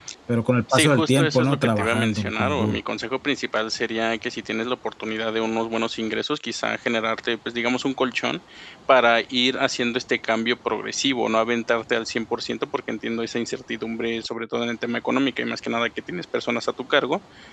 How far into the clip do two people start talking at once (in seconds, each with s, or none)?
0.7 s